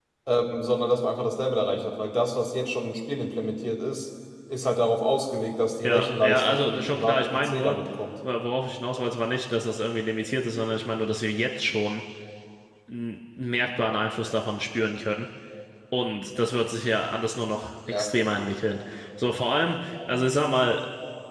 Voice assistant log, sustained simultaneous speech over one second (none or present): present